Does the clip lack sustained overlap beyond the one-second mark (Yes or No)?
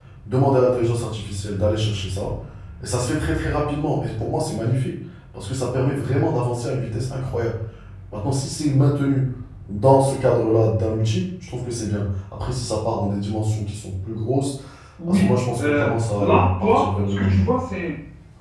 No